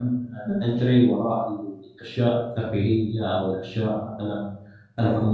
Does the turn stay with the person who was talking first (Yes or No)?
Yes